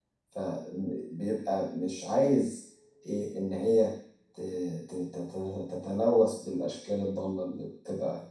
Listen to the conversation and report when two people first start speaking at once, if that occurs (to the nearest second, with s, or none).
none